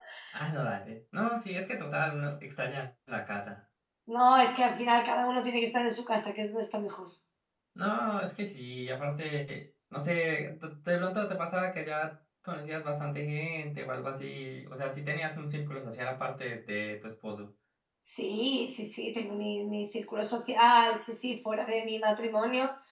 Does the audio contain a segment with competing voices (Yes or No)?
No